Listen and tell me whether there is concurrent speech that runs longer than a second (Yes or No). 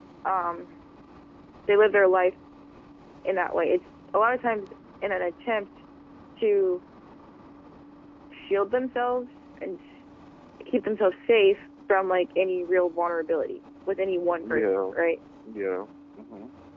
No